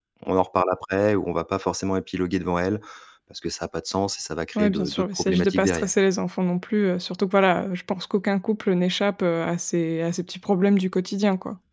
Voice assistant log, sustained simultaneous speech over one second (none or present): present